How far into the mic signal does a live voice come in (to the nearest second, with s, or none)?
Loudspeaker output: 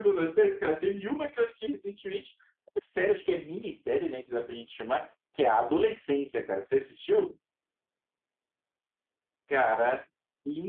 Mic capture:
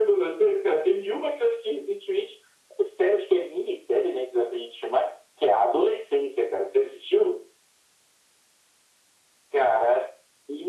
none